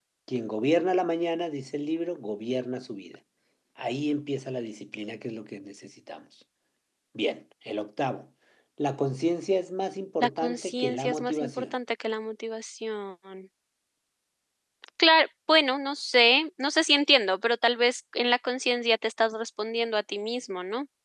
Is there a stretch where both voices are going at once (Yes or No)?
Yes